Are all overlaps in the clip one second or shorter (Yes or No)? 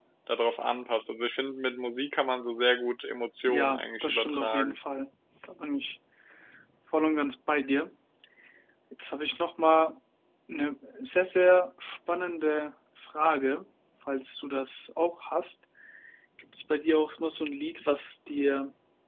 No